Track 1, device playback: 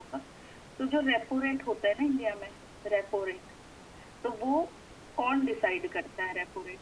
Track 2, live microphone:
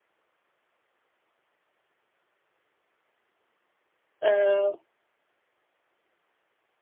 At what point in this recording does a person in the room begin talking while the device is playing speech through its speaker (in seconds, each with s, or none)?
4.2 s